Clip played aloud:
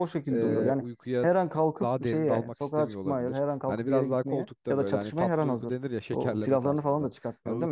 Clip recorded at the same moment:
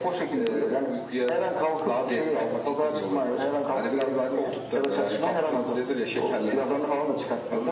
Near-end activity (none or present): none